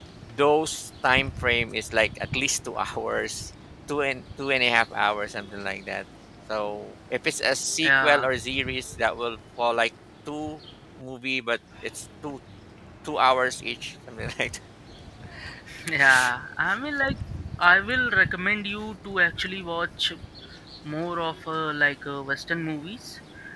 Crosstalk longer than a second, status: none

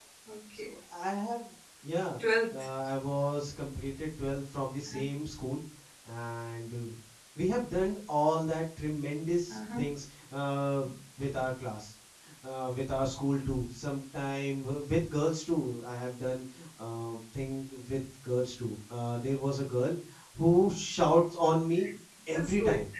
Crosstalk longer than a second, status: none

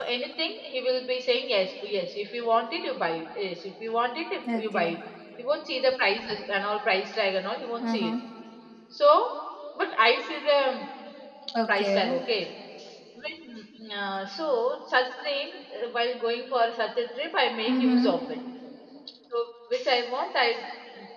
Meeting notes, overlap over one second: none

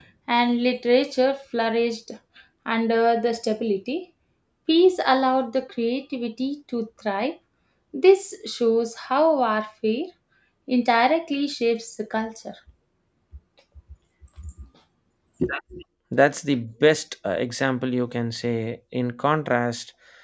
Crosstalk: none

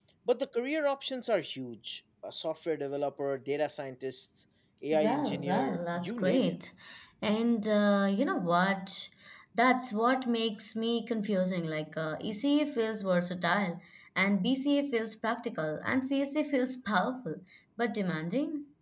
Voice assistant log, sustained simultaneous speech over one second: present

